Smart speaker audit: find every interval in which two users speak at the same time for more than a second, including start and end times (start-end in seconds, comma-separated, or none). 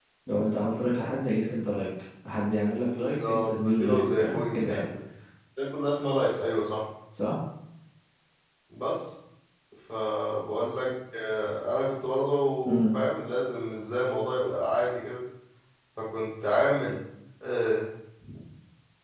3.0-4.8